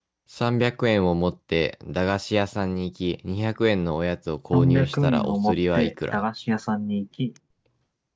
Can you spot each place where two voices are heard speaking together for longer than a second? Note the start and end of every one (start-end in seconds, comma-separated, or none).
4.5-6.2